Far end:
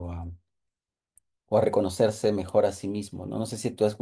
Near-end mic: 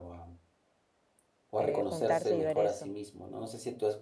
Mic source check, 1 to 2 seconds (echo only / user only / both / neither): both